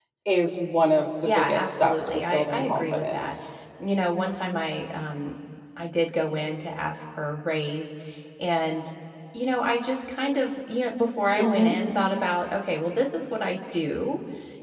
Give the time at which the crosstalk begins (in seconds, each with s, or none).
1.2 s